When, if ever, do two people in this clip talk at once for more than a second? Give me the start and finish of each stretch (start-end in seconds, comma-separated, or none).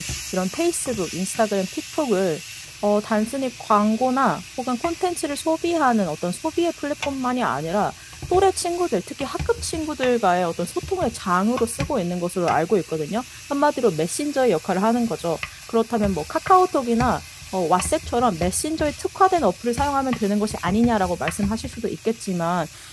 none